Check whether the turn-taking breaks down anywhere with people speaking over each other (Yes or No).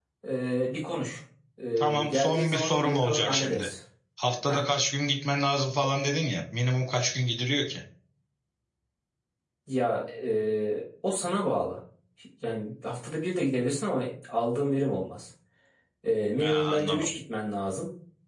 Yes